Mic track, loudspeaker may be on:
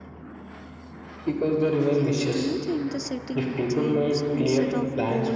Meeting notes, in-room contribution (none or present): present